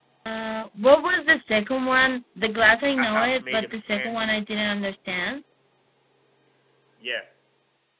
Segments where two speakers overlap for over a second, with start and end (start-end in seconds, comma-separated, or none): 3.0-4.4